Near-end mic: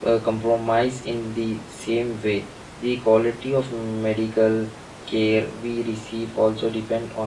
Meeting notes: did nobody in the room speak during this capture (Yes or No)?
No